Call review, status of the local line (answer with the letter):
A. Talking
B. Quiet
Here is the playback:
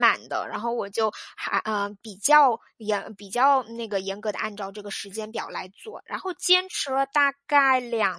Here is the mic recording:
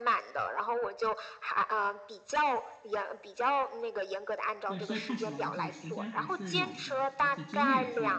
A